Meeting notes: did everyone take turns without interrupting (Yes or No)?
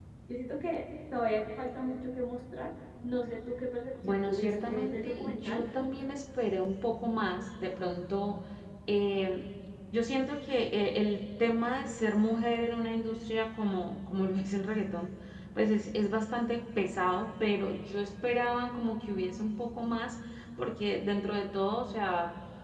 No